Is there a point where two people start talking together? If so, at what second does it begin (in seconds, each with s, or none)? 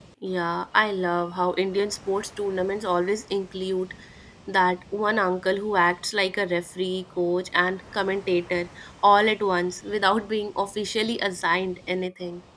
none